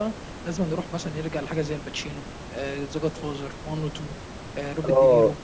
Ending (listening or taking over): taking over